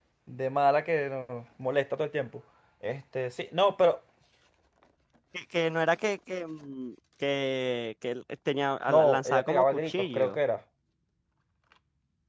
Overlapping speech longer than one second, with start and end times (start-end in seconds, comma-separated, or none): 8.9-10.4